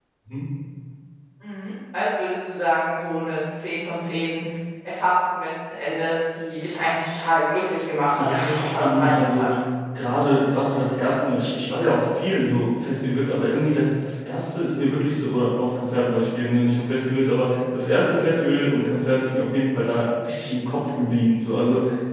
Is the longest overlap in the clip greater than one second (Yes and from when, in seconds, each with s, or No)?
Yes, from 8.2 s